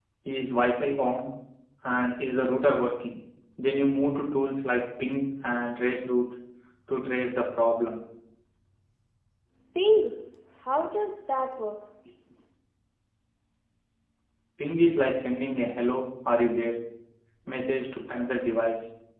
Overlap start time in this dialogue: none

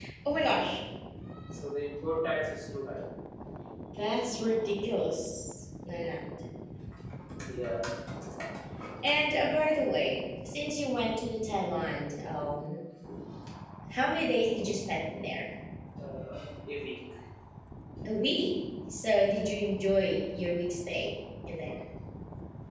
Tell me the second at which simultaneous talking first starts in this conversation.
none

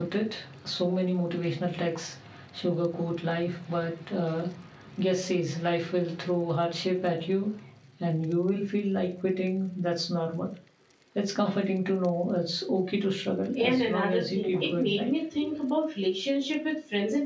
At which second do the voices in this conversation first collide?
13.6 s

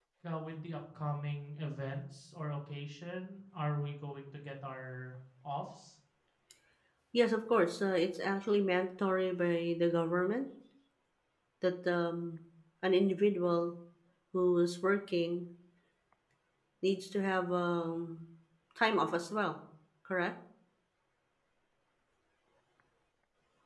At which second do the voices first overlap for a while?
none

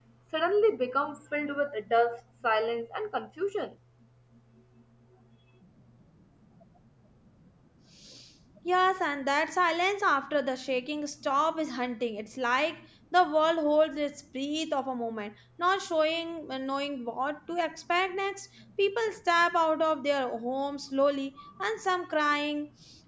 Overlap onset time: none

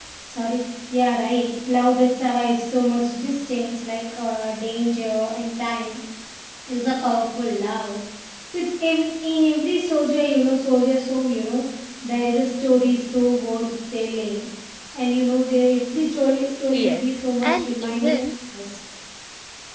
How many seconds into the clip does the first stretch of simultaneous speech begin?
16.7 s

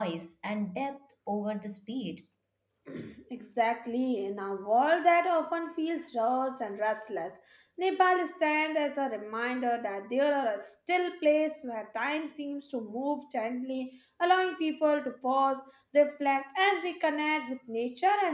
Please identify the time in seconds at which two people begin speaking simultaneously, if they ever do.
none

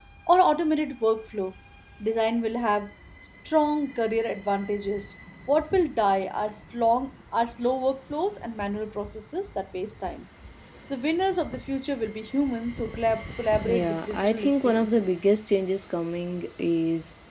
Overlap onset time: 13.6 s

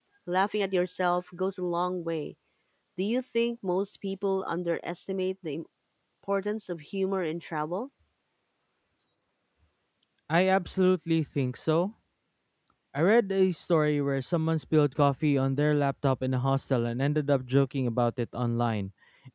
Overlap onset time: none

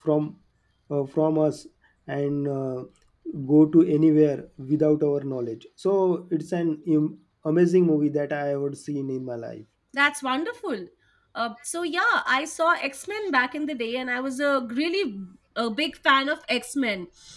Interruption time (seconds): none

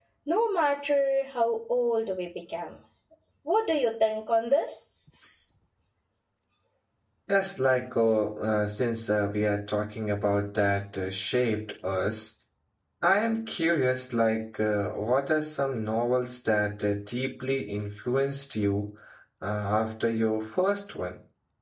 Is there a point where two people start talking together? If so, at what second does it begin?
none

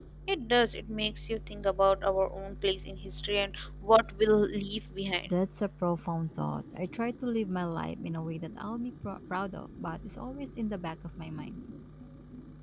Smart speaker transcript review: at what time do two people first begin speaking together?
none

